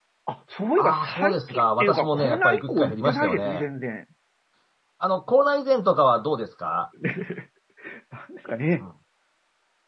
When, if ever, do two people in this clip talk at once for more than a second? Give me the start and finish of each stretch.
0.8-3.6

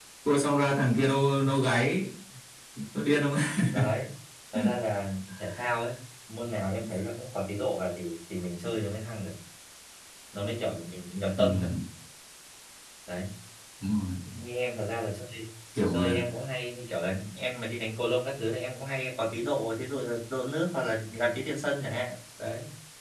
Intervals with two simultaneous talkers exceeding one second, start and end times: none

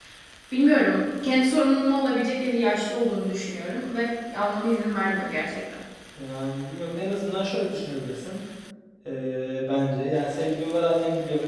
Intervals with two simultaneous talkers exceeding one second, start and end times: none

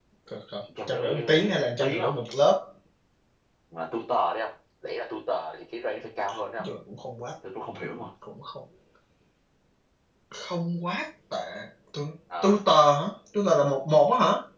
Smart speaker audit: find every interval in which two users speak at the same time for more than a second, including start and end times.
0.9-2.2

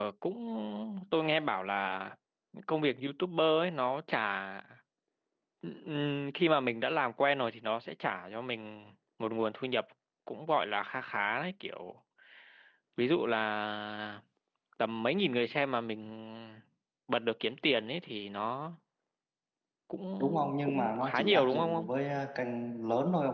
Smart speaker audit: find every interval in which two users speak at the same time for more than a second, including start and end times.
20.2-21.9

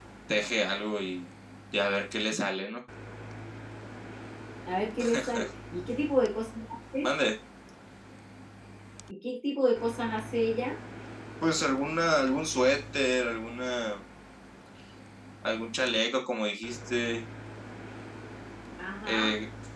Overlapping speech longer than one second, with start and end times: none

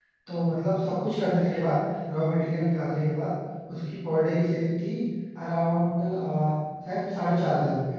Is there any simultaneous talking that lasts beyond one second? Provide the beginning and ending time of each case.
none

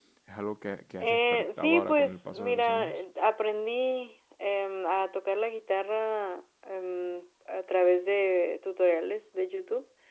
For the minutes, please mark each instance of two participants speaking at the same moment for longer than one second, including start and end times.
1.0-2.9

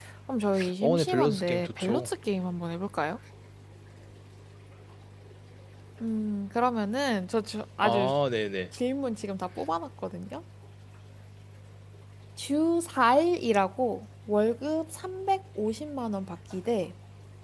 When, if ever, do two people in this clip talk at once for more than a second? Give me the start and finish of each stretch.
0.8-2.1

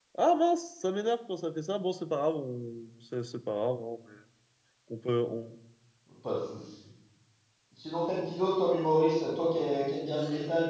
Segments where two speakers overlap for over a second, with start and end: none

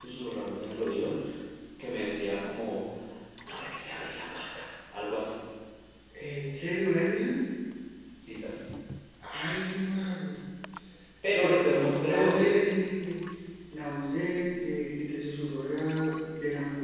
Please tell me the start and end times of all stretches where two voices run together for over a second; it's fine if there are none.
none

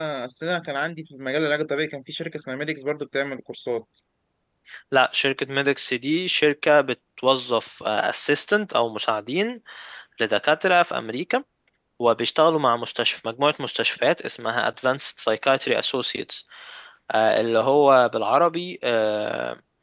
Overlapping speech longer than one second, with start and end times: none

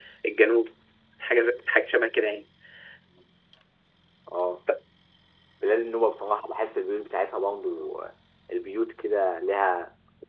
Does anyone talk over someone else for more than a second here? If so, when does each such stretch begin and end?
none

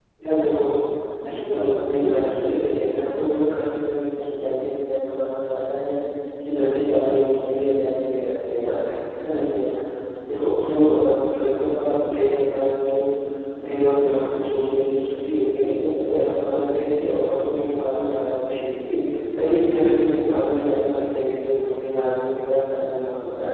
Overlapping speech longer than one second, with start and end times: 1.5-2.8

